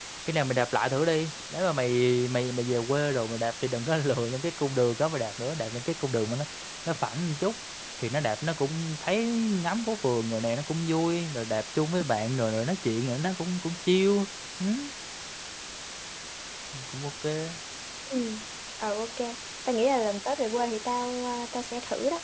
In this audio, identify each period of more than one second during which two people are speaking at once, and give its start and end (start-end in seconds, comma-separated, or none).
none